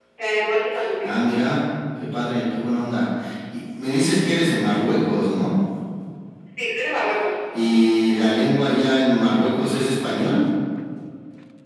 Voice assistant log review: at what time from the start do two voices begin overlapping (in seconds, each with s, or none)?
none